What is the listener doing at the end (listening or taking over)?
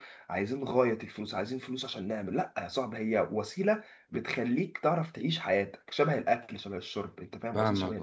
taking over